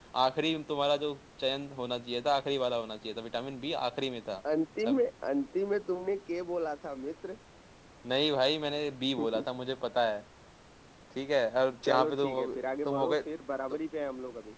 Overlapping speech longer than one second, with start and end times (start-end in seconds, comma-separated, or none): 11.9-13.2